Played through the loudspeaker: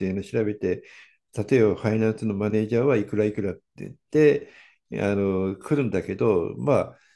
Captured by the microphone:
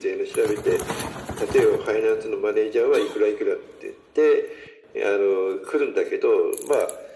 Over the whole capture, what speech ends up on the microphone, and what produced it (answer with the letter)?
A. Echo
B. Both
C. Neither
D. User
A